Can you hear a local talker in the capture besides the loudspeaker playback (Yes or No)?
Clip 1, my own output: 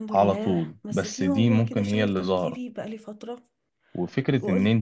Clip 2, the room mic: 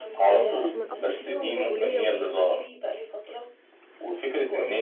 Yes